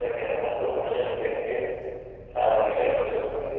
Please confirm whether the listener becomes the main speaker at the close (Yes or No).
No